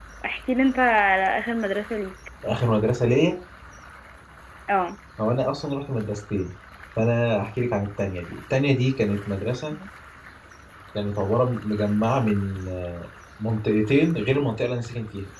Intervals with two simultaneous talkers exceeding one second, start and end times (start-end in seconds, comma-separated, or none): none